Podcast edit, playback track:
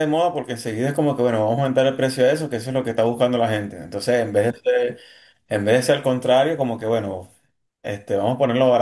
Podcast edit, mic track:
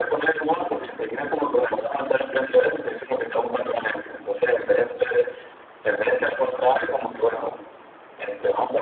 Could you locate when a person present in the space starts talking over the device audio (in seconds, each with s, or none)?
none